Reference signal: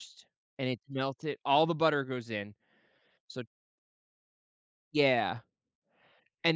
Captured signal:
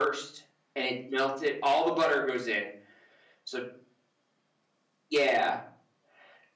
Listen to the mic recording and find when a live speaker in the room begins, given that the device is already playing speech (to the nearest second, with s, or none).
none